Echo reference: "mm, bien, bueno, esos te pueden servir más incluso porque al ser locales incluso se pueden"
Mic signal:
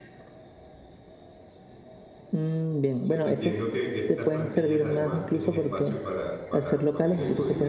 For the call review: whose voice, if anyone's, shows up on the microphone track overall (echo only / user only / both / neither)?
both